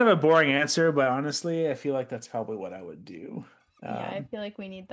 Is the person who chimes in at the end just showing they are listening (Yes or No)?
No